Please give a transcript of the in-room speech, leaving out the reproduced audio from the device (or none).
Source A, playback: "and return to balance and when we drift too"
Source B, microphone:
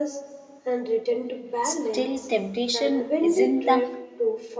Still, temptation isn't the